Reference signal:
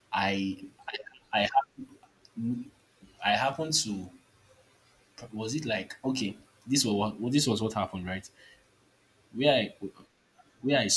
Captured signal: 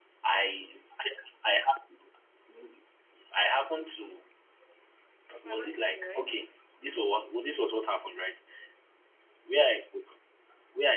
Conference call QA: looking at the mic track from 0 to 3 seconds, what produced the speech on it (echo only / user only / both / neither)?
echo only